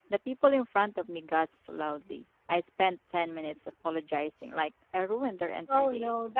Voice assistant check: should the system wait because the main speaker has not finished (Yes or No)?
No